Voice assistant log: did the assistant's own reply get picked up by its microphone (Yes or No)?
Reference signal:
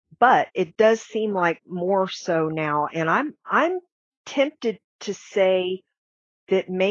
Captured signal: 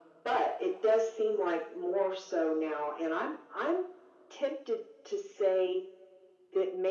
Yes